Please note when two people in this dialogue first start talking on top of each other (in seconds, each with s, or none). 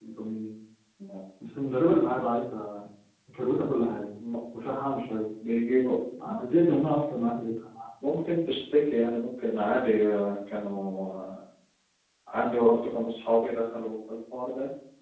none